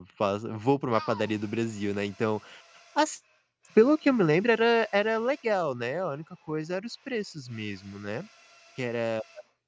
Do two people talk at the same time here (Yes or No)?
No